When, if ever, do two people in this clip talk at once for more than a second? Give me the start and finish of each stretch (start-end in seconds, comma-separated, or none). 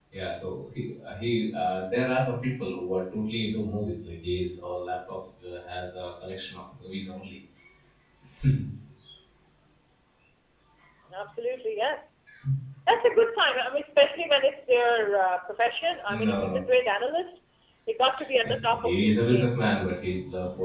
18.4-19.9